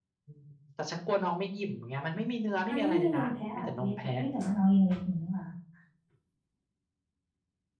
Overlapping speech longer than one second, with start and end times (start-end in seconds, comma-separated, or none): 2.7-3.9